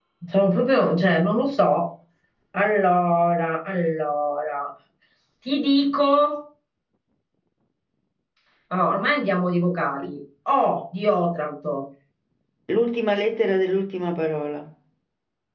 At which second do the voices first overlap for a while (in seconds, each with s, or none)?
none